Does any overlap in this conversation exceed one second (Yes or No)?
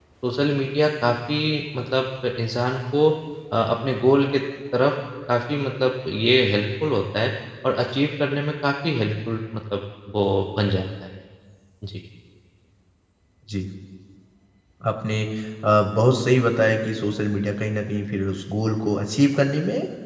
No